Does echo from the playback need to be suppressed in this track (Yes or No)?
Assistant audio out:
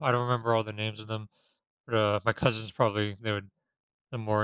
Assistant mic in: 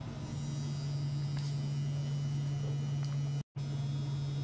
No